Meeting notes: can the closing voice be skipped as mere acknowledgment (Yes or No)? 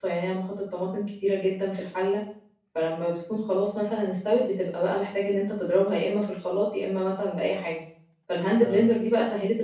Yes